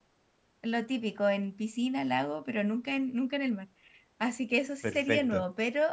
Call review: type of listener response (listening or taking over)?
listening